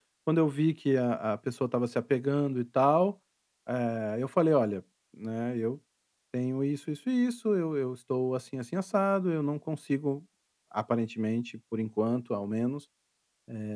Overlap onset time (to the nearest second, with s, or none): none